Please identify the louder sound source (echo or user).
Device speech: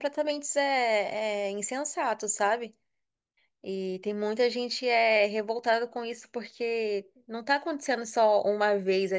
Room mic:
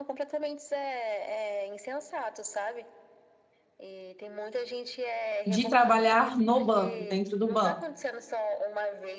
user